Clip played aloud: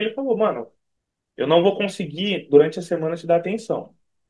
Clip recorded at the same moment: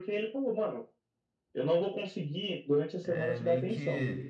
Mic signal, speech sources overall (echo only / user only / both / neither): both